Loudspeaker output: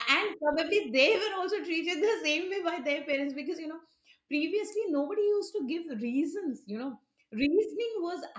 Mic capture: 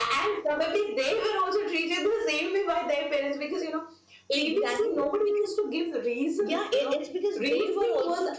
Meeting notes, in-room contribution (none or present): present